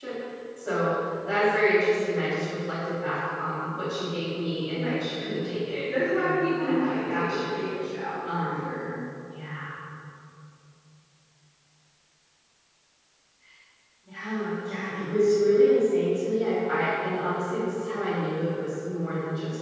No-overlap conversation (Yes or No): No